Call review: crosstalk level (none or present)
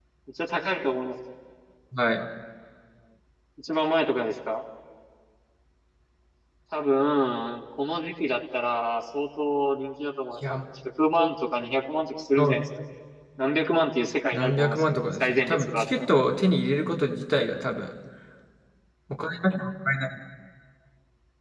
present